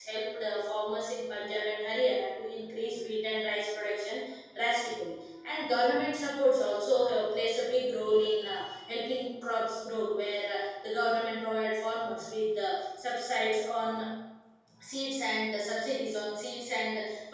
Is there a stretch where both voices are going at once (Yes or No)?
No